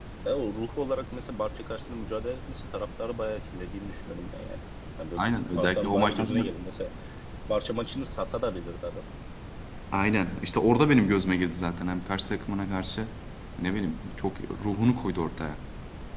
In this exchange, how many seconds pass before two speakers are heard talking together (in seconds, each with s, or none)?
5.2 s